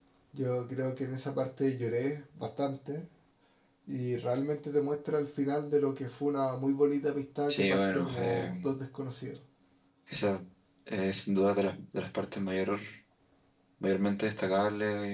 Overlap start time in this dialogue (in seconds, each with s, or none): 7.5 s